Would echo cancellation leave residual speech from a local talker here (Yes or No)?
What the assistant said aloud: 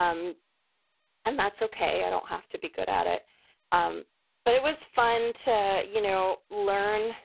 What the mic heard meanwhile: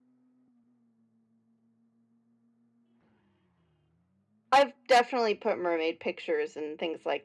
Yes